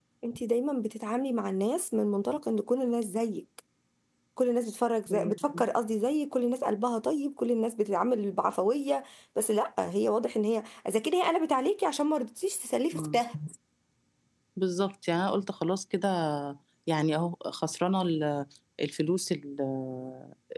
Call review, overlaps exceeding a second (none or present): none